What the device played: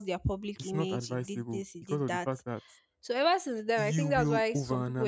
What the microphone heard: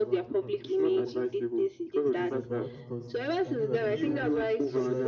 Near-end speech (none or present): present